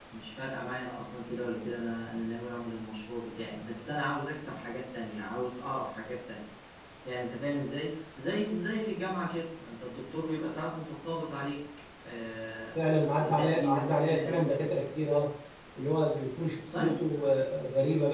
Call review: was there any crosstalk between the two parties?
Yes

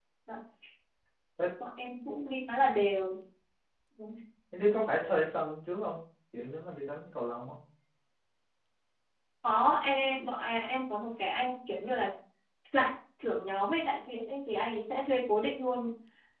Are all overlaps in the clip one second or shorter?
Yes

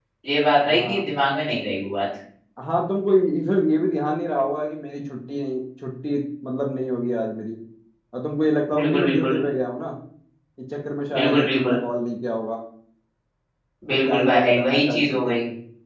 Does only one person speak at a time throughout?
No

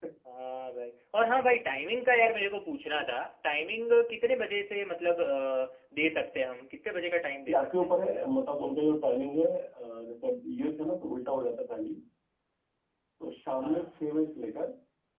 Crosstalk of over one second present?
No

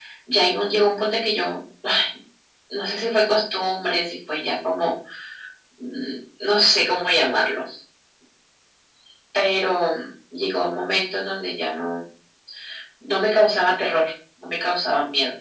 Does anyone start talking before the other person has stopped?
No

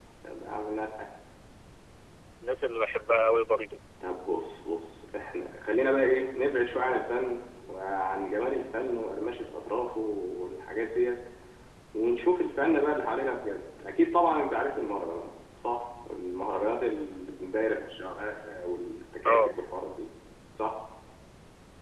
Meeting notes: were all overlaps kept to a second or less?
Yes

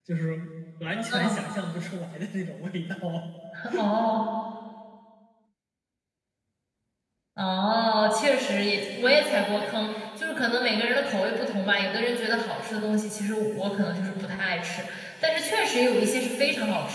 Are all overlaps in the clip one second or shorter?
Yes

